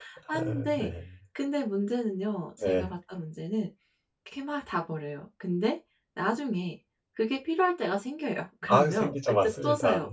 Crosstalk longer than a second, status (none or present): present